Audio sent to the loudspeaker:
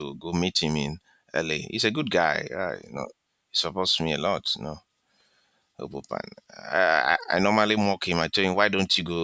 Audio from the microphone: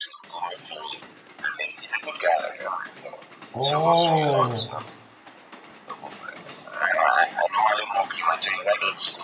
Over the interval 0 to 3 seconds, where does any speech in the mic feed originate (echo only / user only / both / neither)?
echo only